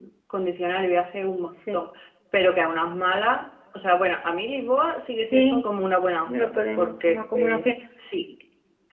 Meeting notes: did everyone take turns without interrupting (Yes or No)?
No